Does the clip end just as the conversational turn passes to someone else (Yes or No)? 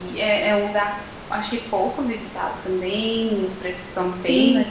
Yes